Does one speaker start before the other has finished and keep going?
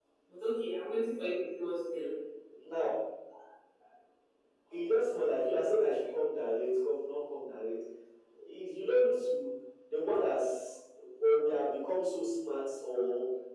No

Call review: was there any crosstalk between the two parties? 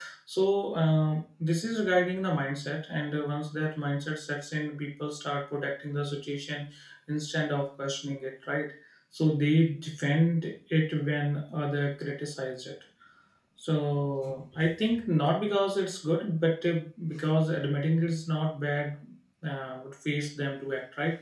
No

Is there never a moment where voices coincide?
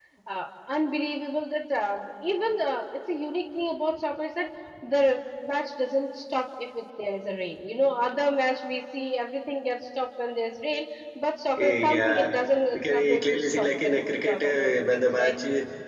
No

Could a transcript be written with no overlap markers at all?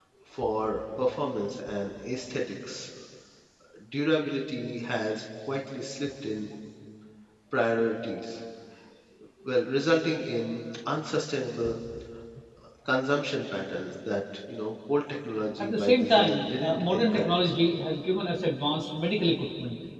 No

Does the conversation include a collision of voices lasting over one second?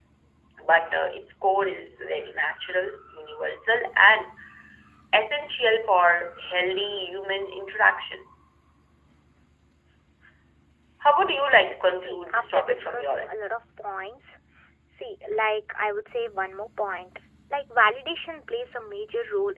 Yes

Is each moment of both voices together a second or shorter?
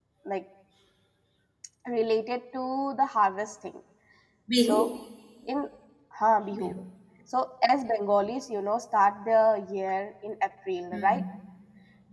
Yes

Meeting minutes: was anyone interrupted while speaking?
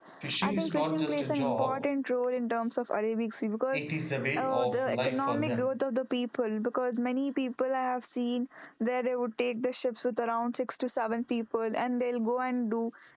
Yes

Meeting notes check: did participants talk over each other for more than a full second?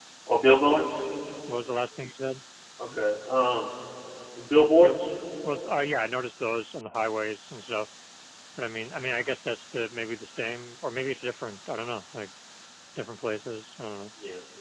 No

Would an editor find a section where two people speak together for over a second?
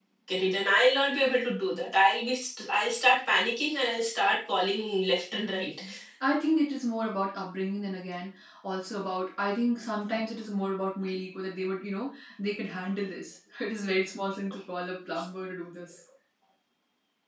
No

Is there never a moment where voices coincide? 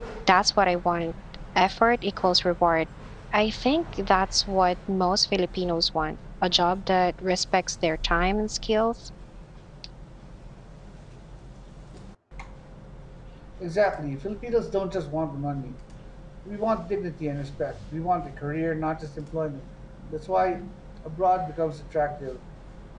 Yes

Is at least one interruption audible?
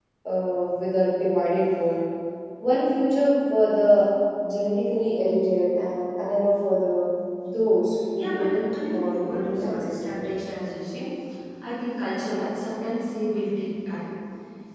Yes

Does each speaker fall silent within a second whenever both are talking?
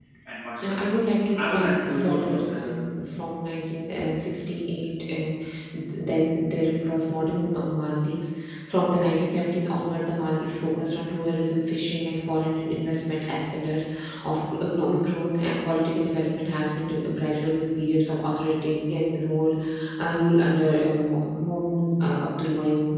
No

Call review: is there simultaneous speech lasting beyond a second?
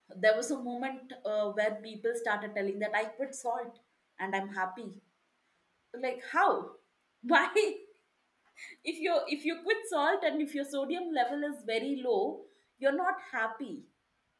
No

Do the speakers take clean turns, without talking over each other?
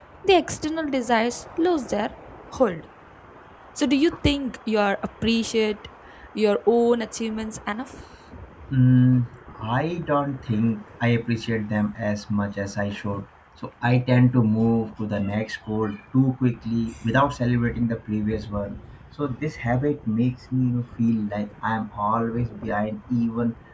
Yes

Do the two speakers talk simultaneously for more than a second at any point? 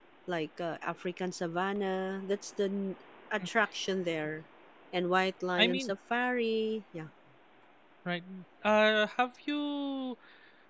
No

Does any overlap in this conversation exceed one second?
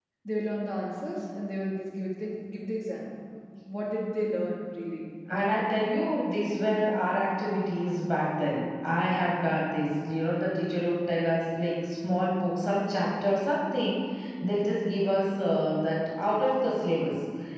No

